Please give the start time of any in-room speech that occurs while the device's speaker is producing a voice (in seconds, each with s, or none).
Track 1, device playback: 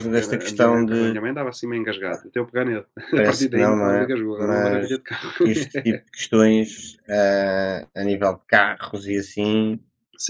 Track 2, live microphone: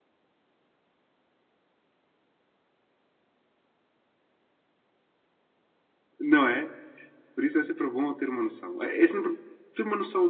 6.2 s